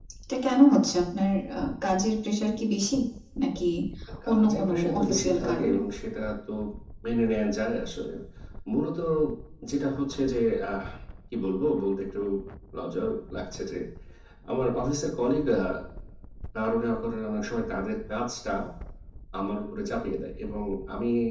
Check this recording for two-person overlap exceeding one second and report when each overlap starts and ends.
4.3-5.8

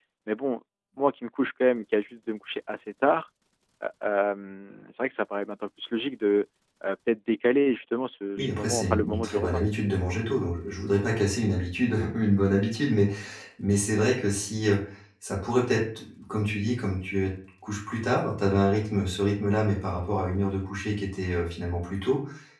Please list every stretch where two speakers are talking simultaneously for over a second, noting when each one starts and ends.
8.4-9.6

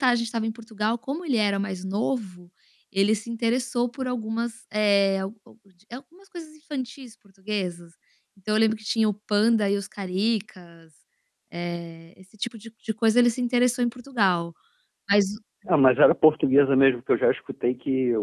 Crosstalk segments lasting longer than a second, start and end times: none

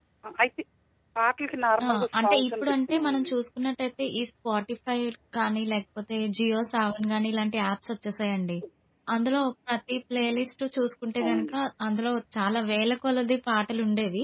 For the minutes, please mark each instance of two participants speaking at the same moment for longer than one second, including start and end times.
1.8-3.4

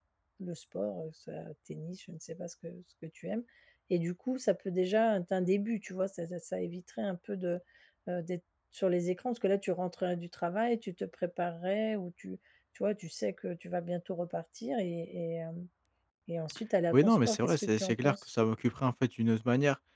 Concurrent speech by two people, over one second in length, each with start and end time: 16.9-18.3

